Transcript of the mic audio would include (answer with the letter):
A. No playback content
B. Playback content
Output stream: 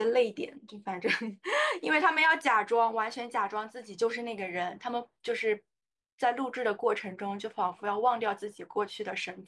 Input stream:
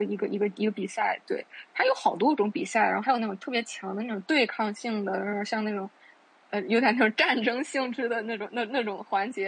A